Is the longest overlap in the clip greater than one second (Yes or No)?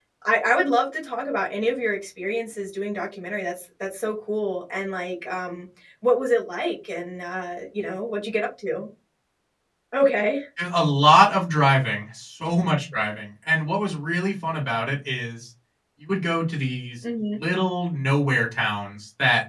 No